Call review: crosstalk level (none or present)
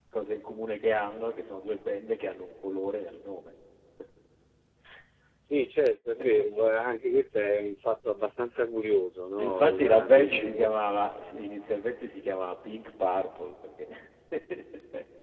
present